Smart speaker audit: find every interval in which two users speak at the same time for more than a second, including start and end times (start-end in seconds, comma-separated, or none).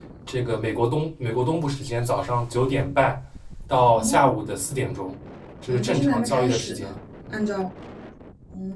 5.7-6.9